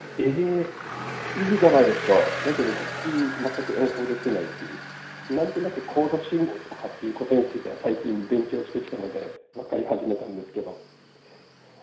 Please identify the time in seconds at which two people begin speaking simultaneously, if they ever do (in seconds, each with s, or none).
none